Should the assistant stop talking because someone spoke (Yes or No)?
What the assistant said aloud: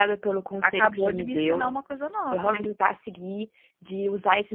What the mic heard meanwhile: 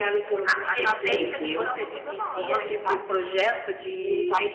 Yes